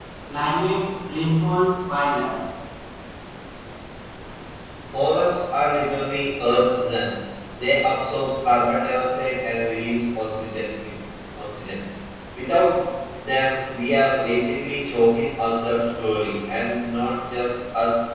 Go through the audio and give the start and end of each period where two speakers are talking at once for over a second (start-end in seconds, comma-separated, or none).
none